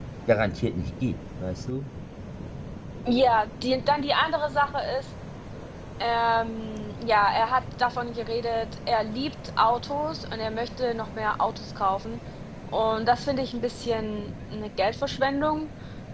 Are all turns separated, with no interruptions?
Yes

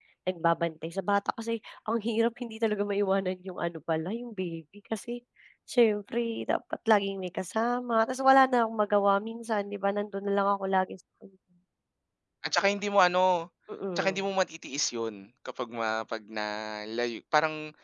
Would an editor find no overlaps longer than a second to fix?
Yes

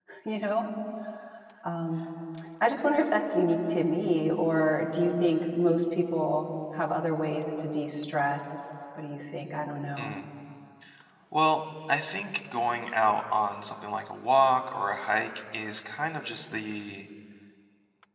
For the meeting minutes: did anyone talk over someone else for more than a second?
No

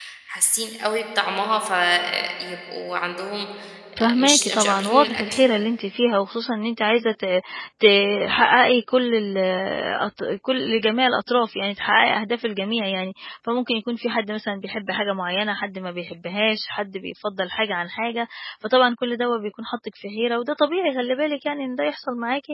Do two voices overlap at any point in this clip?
Yes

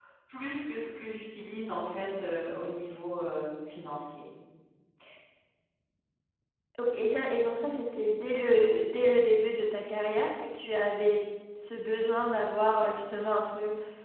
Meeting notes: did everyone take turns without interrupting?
Yes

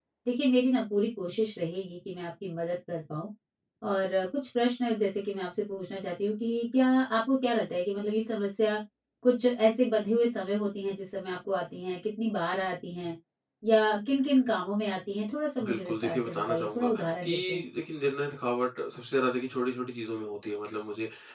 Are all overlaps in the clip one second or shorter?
No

